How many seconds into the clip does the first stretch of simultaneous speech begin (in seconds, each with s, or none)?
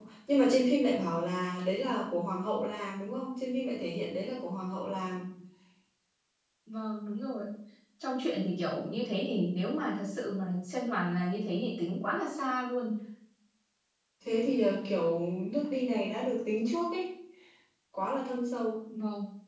none